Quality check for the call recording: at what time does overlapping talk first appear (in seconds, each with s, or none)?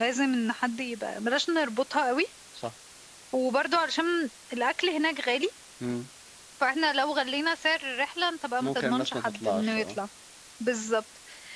8.6 s